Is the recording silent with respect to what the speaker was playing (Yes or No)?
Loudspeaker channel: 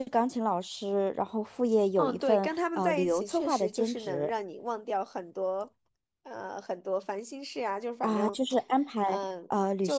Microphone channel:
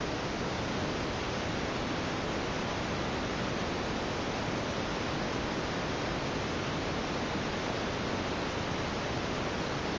Yes